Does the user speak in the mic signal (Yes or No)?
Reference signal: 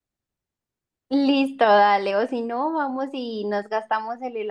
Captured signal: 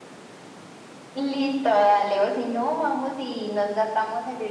No